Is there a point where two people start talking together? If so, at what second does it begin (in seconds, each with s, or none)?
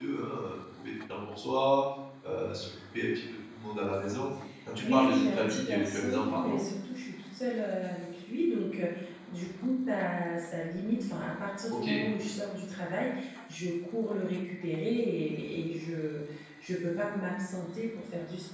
4.8 s